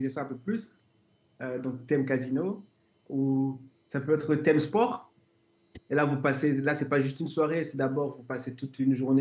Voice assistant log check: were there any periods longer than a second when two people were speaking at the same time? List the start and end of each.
none

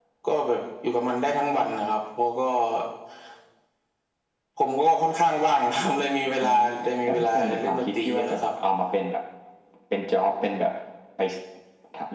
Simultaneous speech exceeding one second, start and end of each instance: 7.0-8.5

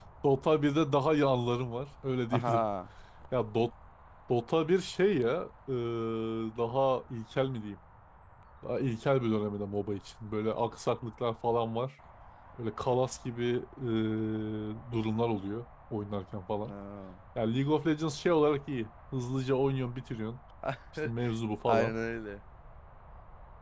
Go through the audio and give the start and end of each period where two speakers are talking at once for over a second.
none

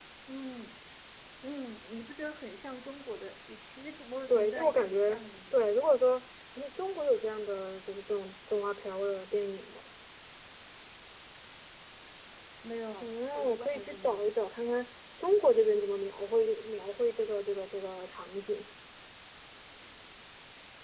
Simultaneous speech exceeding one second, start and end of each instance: 4.3-5.6, 13.0-14.4

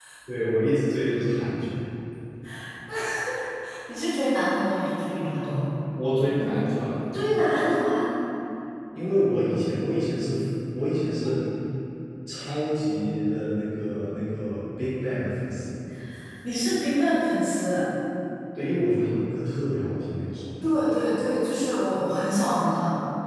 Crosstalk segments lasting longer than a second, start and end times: none

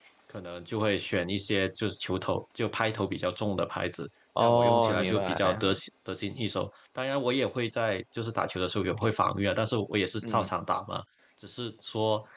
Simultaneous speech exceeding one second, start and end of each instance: 4.4-5.7

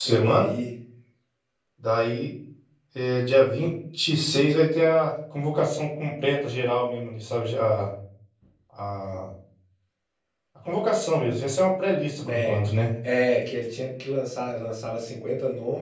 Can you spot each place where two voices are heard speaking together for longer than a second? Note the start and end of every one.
none

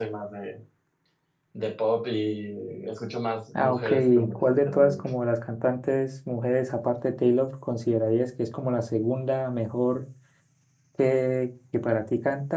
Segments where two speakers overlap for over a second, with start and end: 3.5-5.1

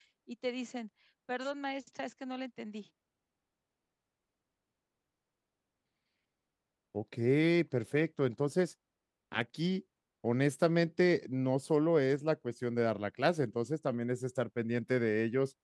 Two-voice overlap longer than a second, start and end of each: none

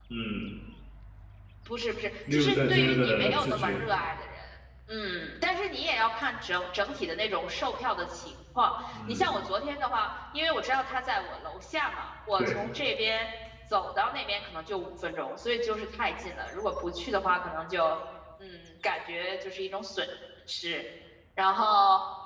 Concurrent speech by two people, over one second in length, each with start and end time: 2.3-3.8

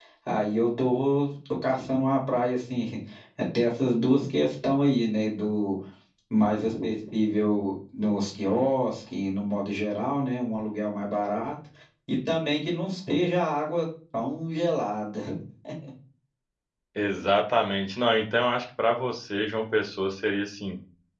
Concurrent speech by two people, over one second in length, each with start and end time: none

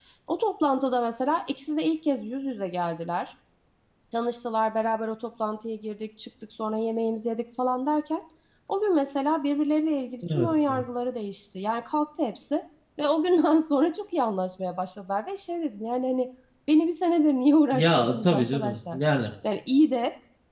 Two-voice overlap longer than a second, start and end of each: 17.7-19.0

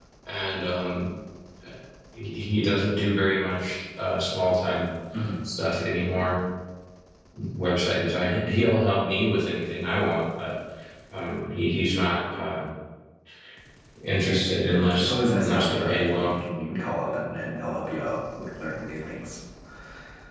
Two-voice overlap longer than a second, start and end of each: 14.7-16.4

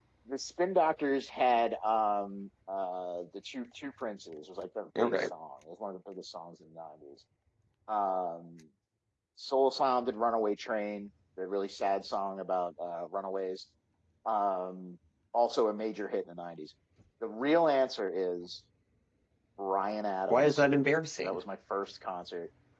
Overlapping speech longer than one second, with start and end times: none

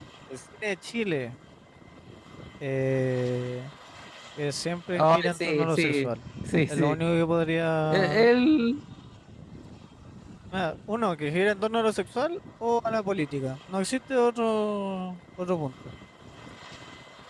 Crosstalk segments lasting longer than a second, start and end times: 4.9-6.1

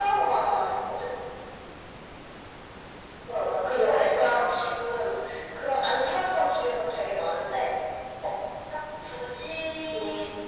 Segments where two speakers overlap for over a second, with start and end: 3.3-4.7

